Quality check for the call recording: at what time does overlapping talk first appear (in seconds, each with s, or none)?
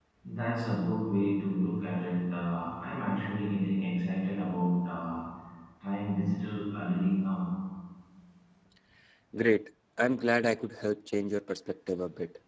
none